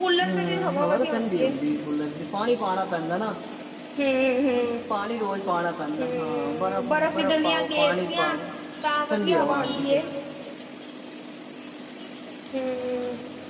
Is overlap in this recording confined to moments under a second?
No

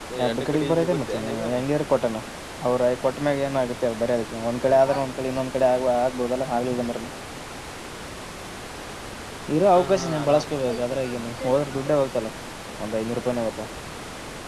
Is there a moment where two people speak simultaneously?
Yes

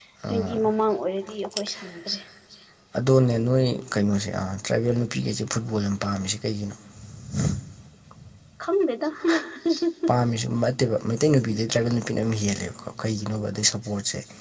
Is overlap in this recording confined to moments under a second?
Yes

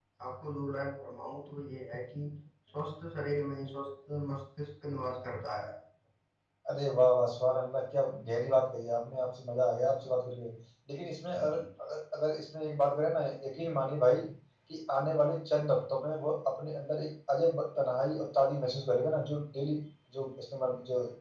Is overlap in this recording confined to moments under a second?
Yes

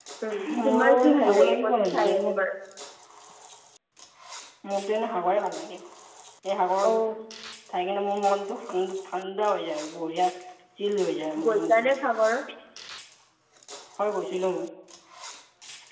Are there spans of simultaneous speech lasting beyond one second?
Yes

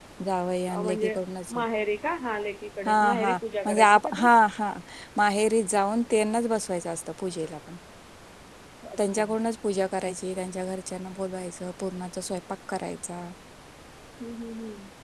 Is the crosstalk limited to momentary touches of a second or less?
No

